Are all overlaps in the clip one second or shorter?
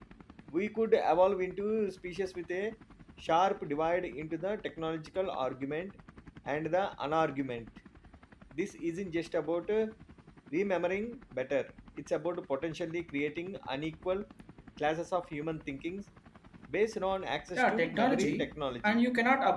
No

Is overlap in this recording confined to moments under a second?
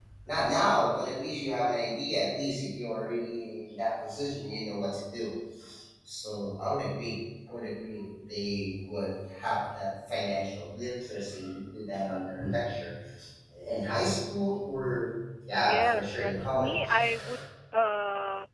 No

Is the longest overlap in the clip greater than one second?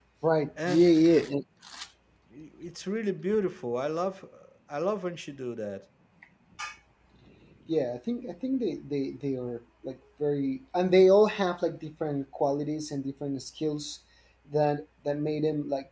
No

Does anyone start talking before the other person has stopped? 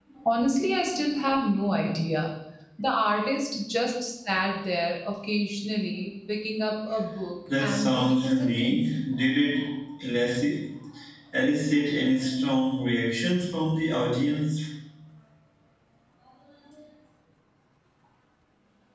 Yes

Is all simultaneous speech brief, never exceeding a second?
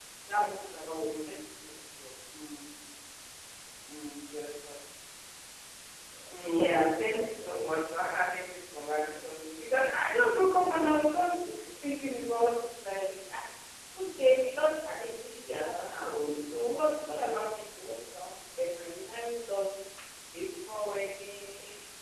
No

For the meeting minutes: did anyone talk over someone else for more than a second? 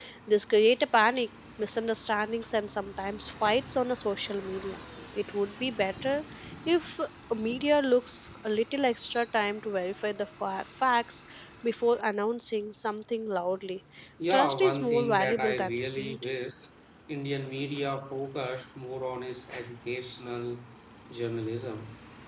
Yes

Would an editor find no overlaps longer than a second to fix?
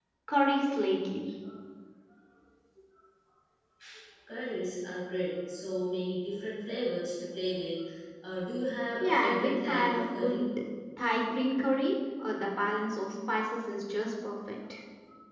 No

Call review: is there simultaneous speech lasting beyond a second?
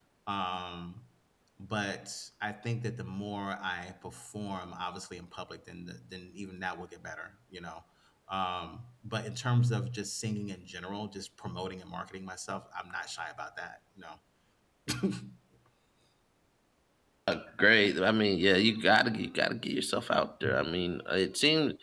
No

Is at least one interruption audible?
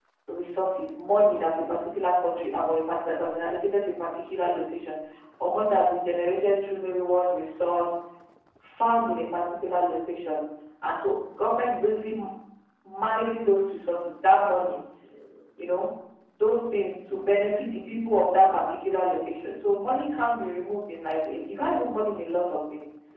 No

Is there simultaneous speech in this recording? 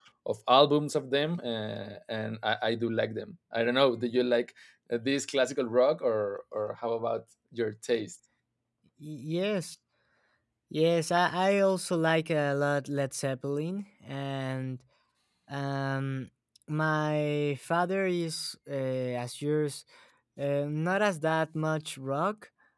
No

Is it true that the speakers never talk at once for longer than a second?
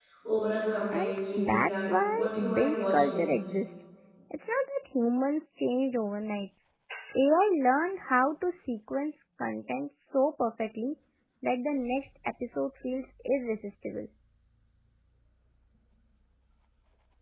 No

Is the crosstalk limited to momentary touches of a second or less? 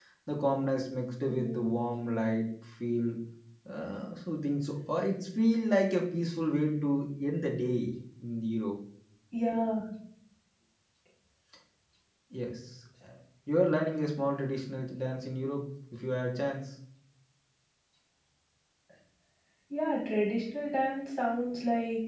Yes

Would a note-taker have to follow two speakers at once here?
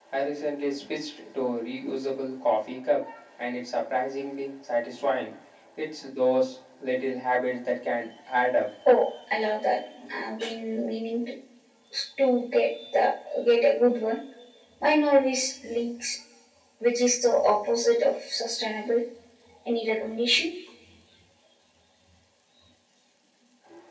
No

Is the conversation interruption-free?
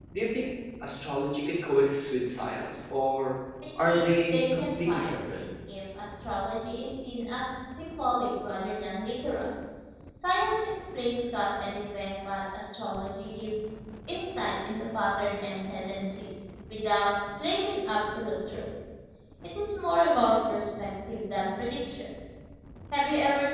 No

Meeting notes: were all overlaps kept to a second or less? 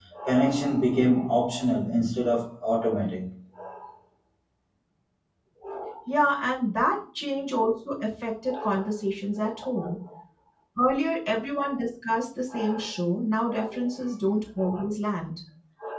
Yes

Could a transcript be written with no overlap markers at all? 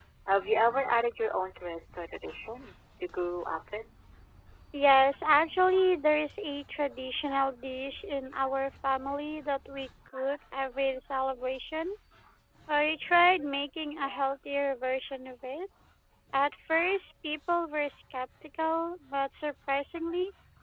Yes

